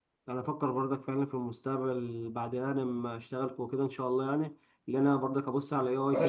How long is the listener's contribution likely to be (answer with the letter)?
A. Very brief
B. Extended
B